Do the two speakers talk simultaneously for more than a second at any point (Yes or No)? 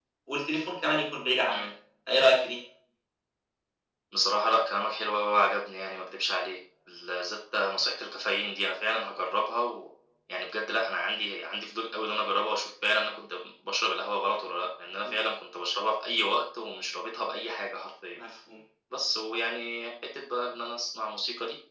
No